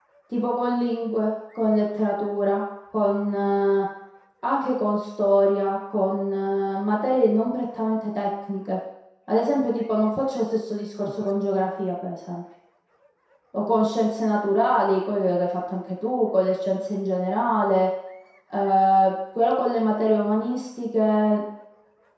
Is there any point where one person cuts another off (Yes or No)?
No